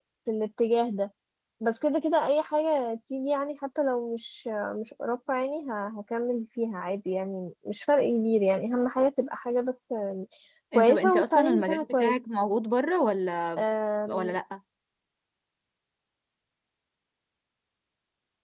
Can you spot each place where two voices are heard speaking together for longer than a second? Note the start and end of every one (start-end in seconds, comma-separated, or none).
10.7-12.2